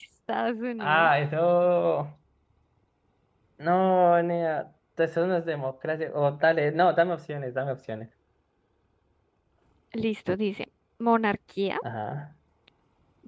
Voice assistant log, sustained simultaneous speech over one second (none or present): none